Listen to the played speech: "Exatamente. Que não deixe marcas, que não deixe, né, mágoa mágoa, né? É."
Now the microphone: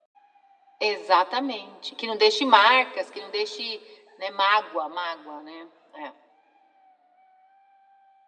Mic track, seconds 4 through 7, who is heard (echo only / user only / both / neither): echo only